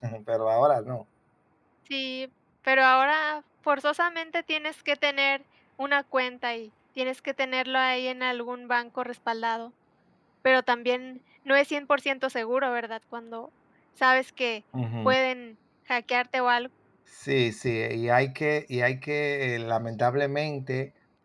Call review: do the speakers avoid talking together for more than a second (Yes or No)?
Yes